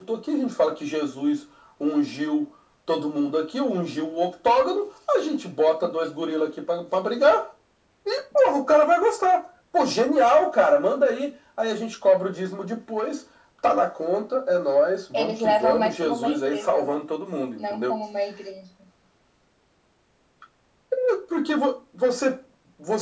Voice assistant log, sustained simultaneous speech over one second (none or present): present